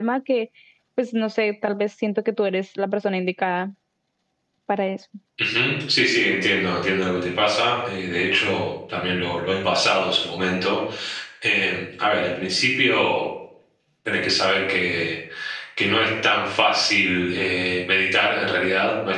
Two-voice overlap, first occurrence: none

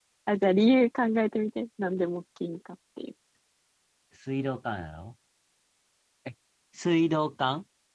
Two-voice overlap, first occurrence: none

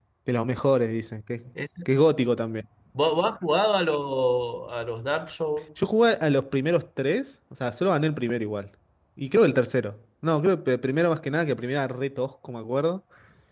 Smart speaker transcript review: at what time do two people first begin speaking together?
none

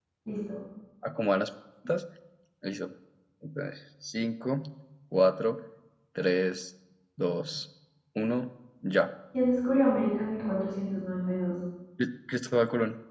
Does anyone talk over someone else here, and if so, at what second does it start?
none

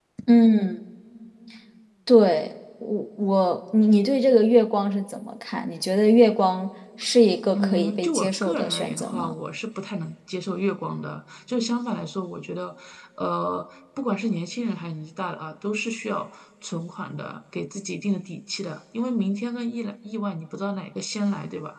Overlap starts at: 7.5 s

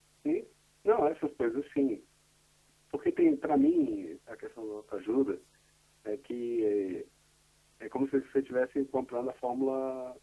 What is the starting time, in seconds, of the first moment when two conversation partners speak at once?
none

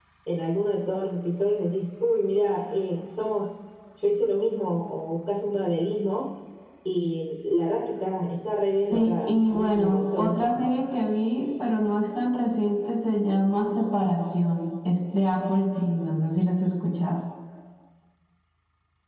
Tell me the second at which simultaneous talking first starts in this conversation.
8.9 s

